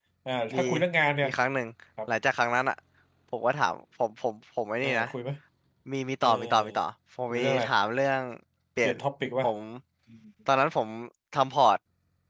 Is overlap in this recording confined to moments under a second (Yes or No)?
Yes